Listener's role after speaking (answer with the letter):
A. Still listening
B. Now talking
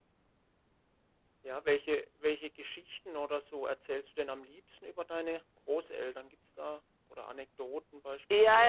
B